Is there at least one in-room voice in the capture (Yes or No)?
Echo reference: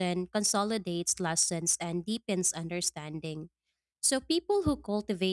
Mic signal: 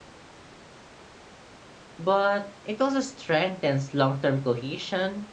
Yes